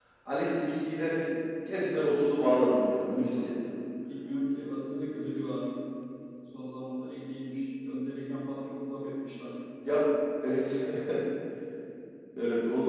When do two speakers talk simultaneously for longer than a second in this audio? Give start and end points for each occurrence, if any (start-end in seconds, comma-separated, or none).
none